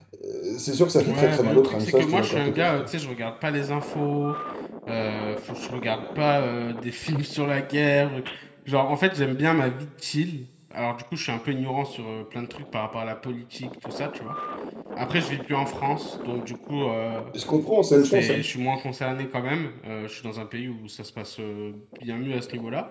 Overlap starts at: 1 s

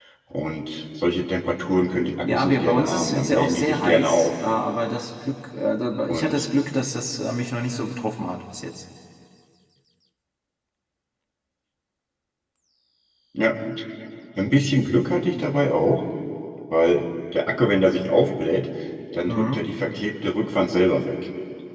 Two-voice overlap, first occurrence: 2 s

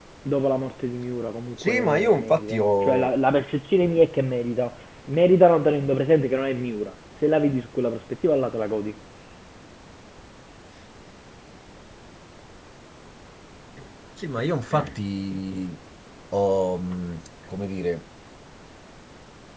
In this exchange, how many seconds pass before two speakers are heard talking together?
2 s

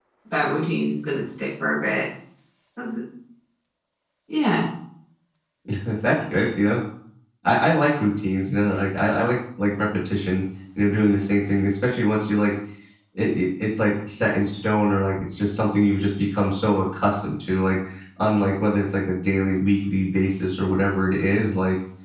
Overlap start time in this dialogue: none

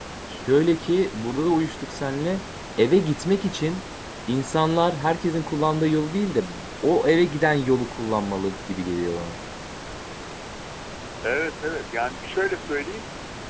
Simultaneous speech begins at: none

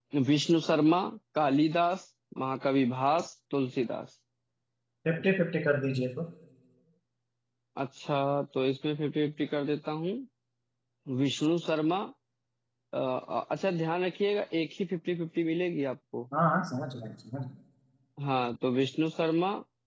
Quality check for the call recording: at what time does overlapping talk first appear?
none

